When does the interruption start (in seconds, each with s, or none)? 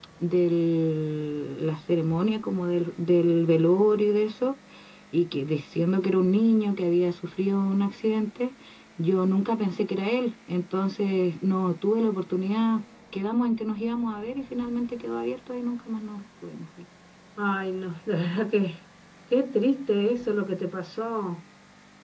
none